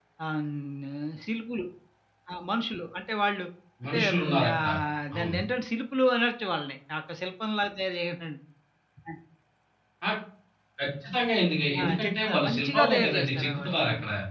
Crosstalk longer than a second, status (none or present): present